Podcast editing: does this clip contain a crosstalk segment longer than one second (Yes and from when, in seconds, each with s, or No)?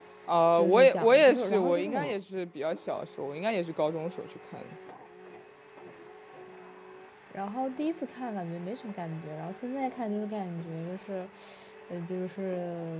Yes, from 0.5 s